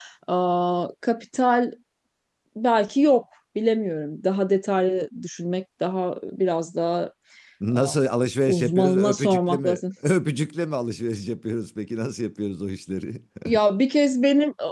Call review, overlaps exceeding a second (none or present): present